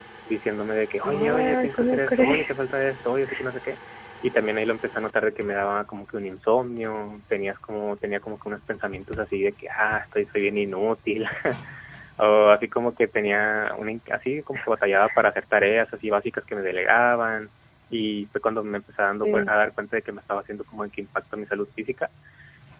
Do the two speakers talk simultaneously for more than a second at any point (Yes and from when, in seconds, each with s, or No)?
Yes, from 1.0 s